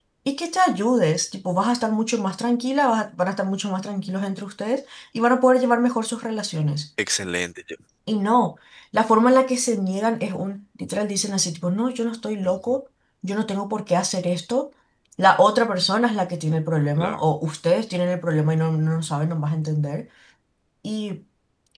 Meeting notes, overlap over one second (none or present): none